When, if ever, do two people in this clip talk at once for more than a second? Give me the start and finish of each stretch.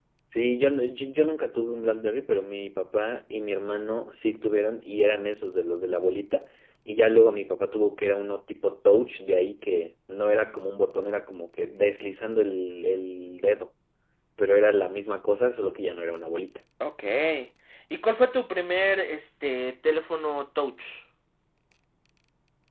none

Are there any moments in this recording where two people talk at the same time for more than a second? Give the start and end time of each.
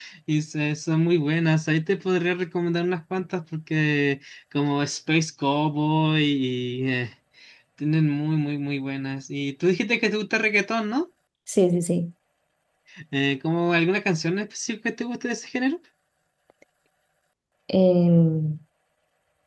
none

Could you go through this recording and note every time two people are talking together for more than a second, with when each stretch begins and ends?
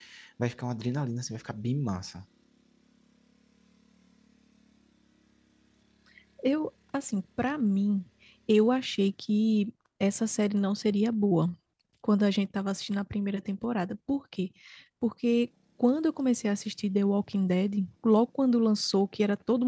none

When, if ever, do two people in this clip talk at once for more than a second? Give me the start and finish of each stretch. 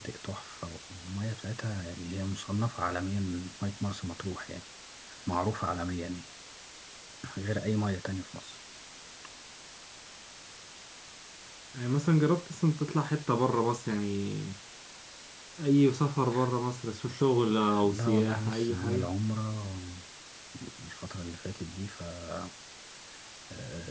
17.8-19.1

